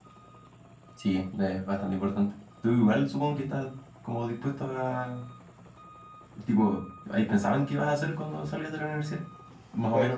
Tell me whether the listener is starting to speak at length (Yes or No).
No